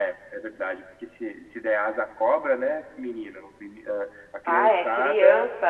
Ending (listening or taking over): taking over